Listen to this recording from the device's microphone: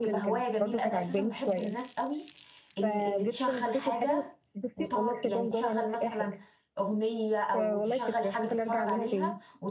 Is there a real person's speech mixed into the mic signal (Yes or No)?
Yes